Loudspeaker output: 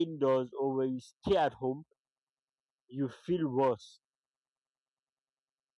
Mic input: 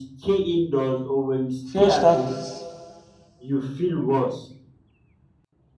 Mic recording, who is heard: both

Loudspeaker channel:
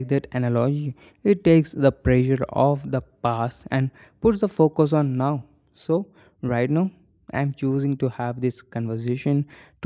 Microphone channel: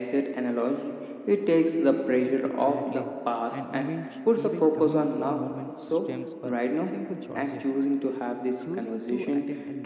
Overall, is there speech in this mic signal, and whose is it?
both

